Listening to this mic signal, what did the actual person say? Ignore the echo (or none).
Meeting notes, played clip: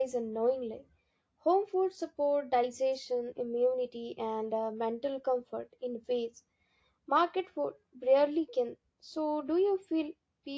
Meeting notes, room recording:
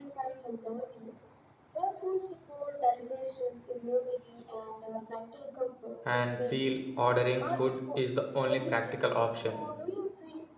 and feel ordering food is the only practical option.